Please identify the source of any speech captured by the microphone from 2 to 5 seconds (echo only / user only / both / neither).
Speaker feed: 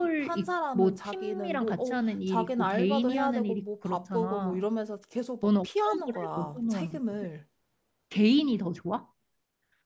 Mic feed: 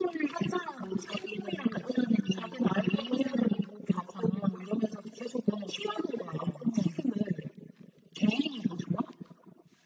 echo only